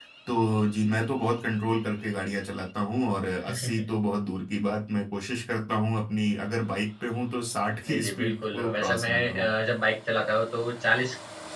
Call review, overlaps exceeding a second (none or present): present